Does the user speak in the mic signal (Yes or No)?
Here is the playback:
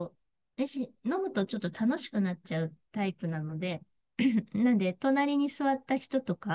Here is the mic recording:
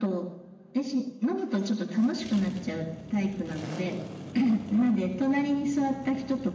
No